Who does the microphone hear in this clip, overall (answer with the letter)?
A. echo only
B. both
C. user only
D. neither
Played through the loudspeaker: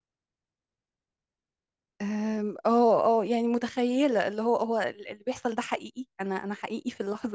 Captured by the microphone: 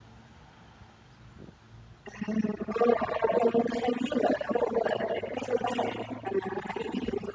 A